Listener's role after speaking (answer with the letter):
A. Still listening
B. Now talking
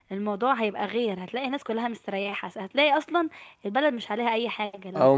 B